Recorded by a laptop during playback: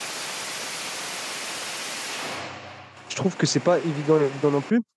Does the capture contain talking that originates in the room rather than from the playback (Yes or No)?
Yes